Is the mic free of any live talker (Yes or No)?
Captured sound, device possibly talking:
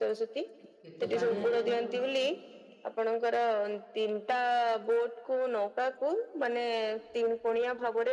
No